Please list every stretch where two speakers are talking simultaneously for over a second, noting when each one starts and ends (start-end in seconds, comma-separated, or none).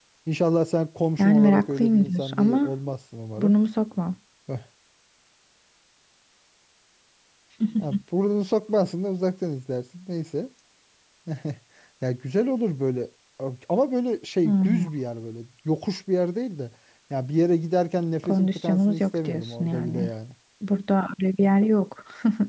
1.2-2.7, 18.2-20.1